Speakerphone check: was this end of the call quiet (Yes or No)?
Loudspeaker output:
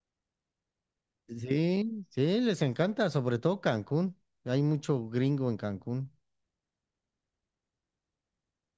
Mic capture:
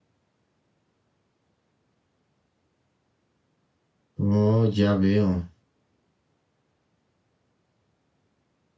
No